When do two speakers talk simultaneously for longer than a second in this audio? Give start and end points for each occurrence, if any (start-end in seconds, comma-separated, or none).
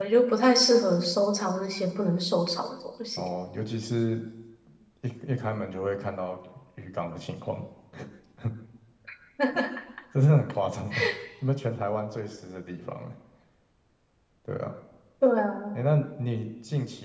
none